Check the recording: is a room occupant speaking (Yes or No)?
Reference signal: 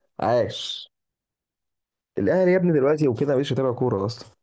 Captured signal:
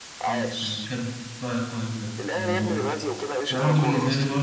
Yes